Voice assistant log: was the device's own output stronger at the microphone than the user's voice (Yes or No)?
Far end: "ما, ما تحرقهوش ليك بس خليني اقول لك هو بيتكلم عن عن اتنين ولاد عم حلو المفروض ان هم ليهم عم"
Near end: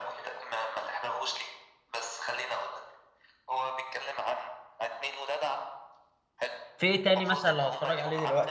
No